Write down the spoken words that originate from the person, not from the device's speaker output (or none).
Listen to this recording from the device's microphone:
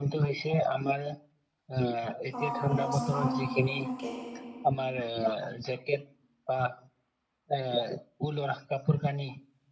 অঁ নমস্কাৰ আপোনাকে।